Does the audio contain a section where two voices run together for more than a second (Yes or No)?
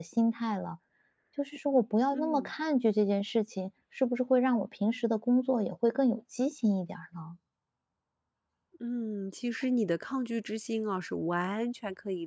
No